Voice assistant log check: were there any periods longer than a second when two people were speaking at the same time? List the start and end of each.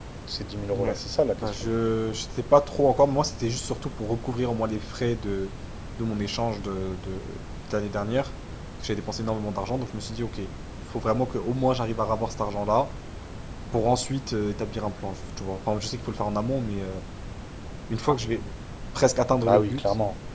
none

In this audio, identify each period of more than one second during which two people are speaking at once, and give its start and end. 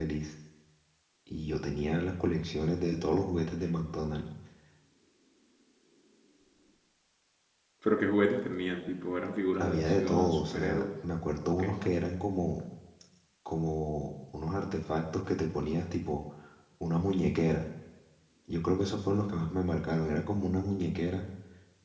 9.6-10.8

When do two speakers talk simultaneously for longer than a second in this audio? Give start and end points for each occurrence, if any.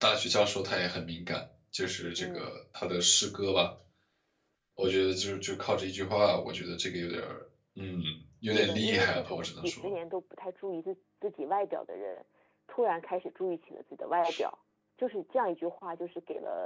8.5-9.9

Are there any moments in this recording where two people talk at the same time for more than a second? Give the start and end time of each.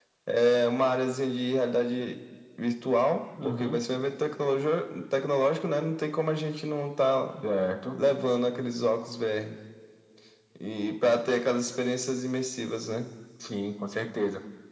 none

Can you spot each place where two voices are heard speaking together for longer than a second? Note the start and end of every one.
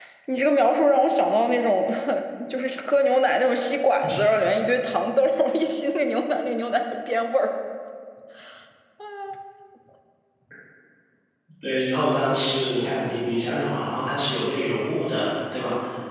none

